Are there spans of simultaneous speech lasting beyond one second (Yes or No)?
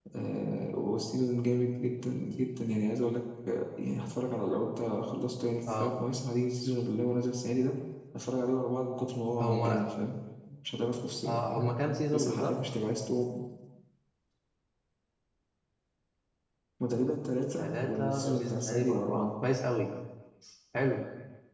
Yes